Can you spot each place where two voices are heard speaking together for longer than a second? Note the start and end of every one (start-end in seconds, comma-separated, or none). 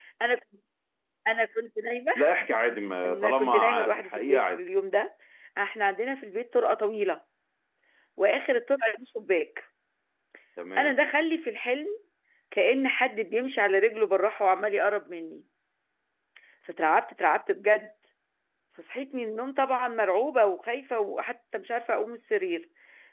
3.0-4.6